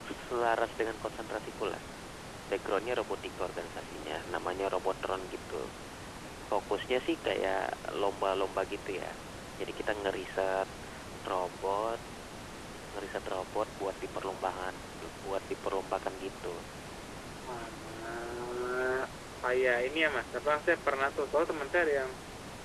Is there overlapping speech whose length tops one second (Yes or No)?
No